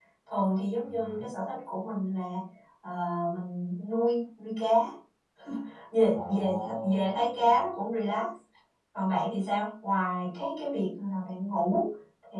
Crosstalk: present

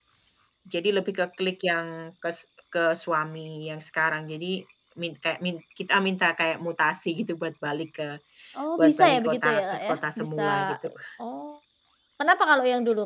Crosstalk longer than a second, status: present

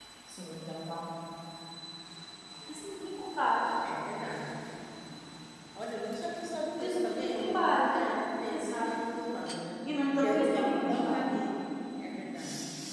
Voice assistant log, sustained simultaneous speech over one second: present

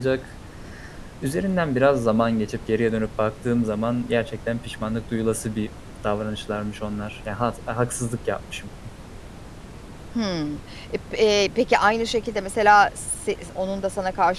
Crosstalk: none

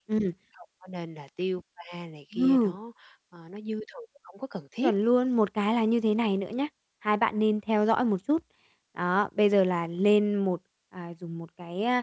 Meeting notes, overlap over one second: none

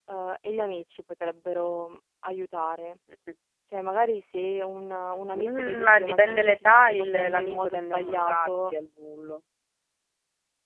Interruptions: present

